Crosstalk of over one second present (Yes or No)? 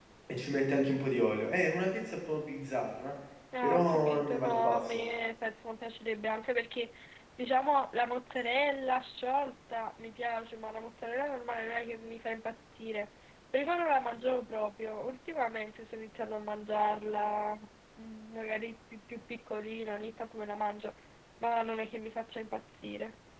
Yes